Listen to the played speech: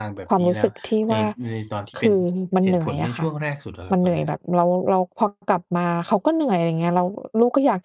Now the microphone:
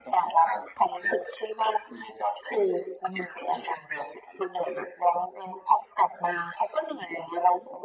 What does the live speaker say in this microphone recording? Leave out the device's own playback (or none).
none